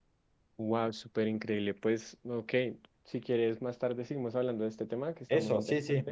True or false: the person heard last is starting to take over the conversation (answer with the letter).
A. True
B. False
A